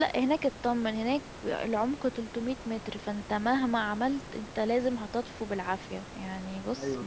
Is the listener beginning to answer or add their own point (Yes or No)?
No